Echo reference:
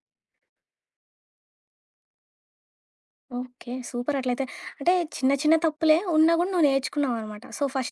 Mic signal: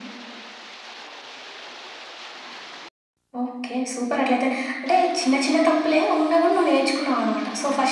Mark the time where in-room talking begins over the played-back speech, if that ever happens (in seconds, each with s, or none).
none